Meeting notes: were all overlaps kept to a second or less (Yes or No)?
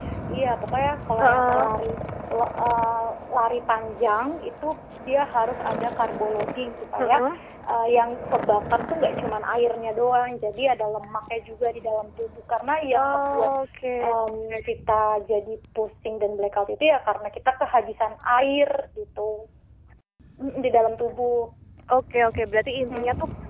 Yes